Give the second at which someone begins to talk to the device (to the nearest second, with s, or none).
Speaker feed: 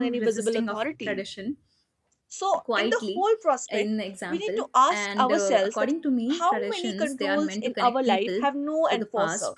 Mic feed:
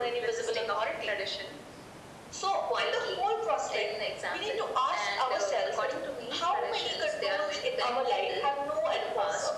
none